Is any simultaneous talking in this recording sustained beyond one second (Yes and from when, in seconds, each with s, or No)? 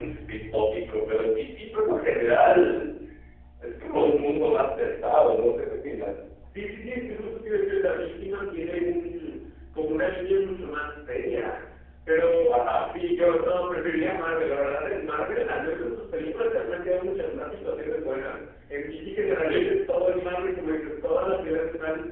No